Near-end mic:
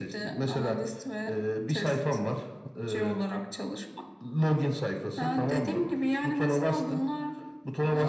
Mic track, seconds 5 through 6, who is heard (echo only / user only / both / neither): echo only